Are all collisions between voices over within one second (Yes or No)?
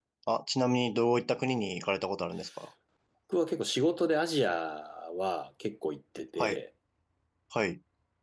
Yes